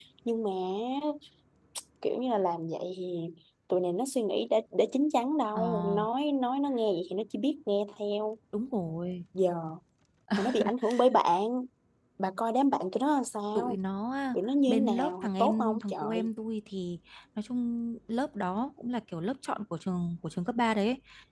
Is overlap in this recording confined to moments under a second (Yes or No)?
No